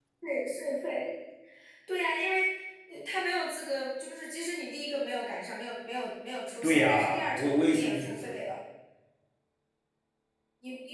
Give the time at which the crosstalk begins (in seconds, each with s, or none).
6.6 s